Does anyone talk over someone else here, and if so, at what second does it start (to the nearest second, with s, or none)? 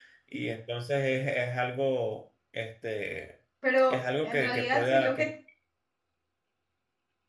4 s